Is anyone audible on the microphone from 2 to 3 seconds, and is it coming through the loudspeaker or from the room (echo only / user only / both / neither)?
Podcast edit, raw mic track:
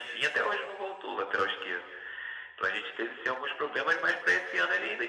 echo only